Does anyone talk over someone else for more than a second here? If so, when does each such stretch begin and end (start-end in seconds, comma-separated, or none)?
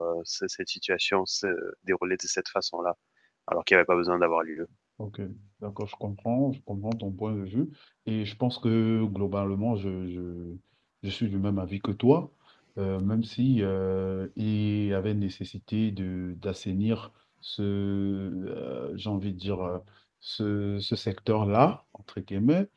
none